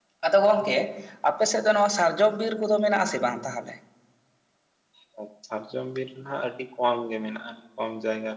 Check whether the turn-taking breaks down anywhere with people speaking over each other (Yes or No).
No